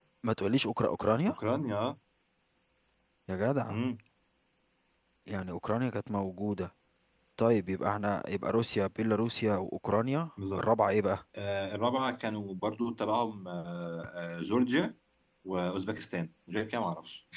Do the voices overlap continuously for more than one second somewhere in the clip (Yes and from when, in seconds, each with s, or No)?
No